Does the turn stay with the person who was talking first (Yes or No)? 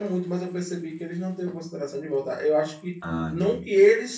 Yes